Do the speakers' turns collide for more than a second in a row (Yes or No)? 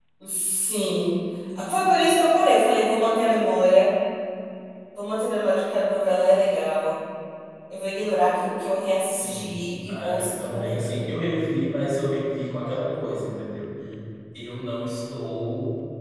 Yes